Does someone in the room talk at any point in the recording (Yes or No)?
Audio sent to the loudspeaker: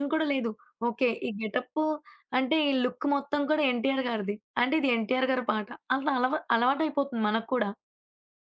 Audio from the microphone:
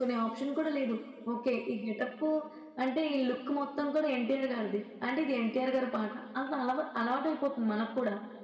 No